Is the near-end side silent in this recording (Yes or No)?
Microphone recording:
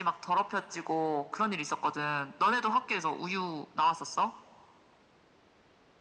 Yes